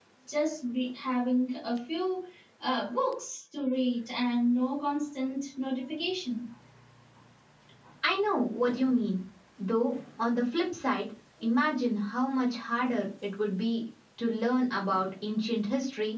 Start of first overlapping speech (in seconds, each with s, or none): none